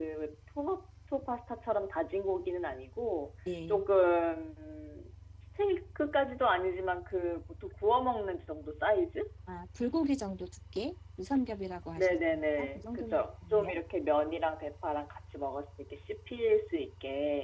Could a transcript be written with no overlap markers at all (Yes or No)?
No